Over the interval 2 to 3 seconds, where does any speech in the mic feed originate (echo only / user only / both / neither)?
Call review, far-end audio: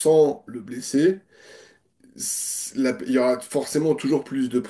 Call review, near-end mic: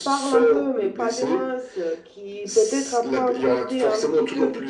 both